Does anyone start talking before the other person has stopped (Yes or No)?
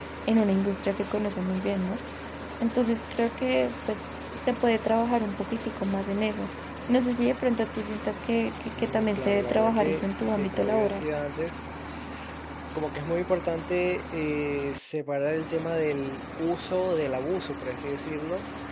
Yes